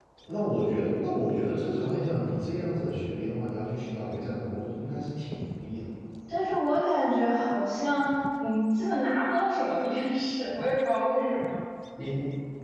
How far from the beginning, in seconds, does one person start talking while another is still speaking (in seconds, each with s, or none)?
none